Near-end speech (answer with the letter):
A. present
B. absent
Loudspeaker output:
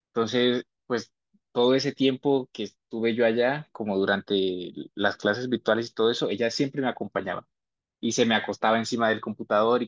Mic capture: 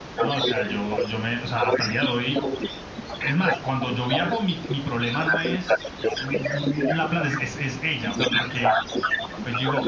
A